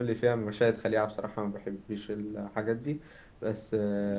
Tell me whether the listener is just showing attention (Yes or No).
Yes